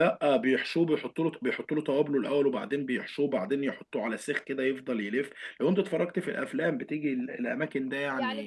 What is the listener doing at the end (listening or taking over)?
taking over